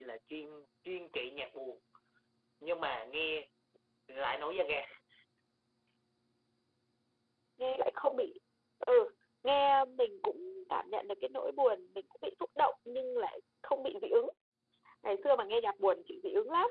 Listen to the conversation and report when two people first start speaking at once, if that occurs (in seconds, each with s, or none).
none